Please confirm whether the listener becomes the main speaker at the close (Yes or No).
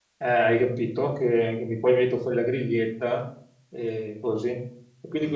No